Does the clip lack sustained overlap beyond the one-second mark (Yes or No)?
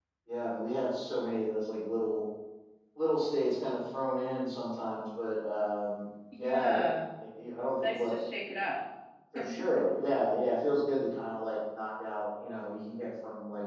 Yes